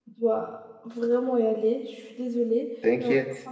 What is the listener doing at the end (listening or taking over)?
listening